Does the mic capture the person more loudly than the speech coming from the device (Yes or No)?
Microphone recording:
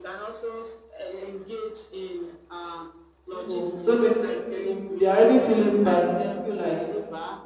Yes